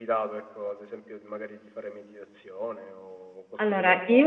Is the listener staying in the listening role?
No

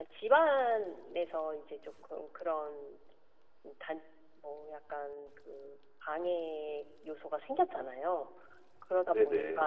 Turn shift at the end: No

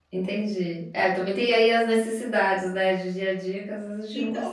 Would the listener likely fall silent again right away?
No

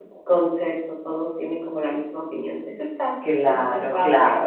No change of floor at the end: No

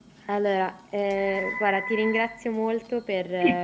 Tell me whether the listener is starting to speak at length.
No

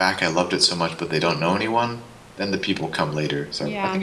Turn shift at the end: Yes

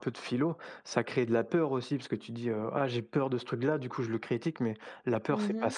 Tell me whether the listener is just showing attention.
Yes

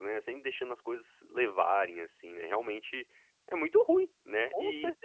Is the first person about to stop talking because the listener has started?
Yes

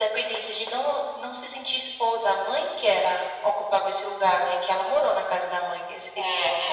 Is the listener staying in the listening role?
No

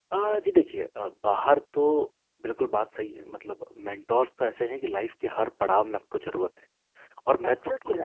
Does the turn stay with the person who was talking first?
Yes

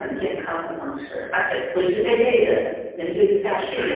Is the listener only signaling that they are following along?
No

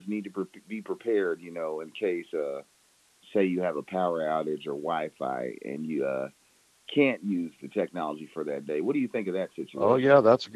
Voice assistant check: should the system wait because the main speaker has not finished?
No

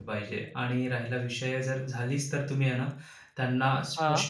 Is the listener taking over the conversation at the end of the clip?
No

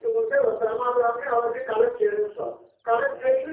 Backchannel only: Yes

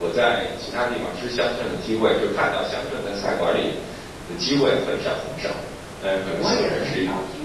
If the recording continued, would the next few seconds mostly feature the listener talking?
Yes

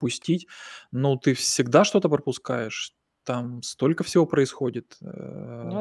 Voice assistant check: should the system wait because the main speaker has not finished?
Yes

